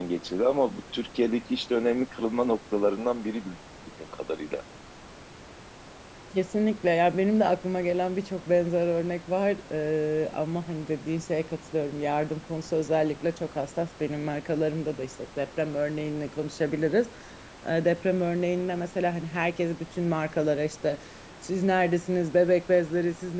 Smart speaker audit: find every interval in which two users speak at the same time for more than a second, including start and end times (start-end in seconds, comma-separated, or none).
none